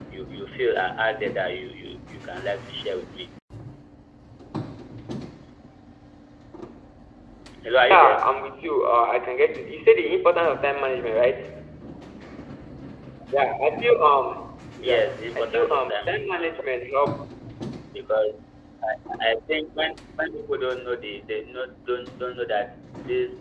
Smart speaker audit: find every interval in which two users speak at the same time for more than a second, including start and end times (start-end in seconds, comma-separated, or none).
15.4-16.6